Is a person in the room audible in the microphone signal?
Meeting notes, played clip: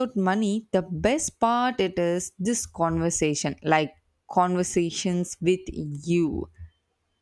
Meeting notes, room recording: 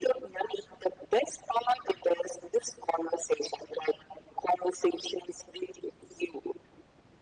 No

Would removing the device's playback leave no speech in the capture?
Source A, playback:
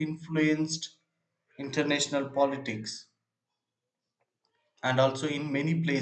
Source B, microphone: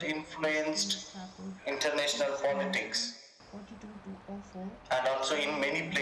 No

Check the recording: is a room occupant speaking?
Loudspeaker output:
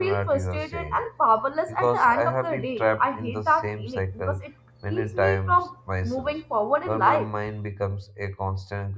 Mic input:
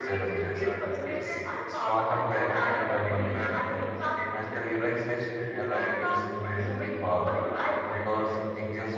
Yes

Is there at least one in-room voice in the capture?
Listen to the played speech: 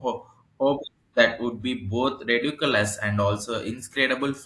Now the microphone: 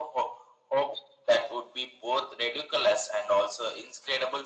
No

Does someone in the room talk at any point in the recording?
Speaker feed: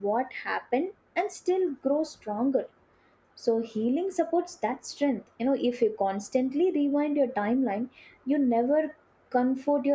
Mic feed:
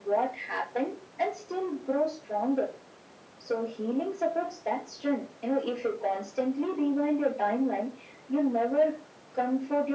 No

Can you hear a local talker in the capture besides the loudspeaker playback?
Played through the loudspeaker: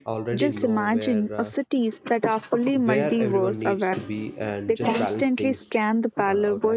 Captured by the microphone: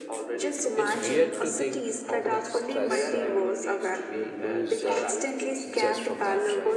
Yes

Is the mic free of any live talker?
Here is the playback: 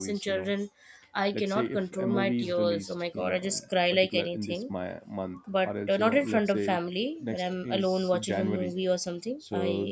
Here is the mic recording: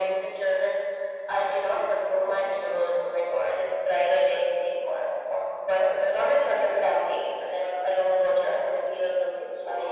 Yes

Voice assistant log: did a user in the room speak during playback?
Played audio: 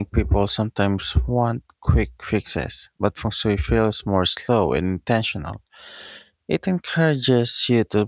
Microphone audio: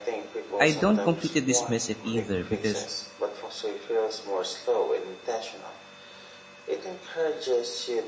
Yes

